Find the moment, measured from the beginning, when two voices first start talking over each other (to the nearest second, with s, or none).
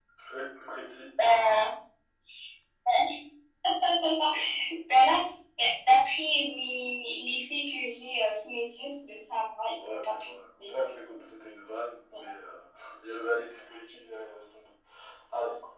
10 s